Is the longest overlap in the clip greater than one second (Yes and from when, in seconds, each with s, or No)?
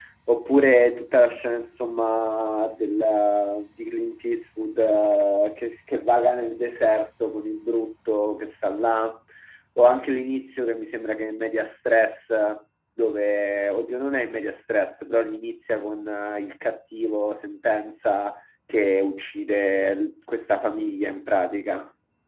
No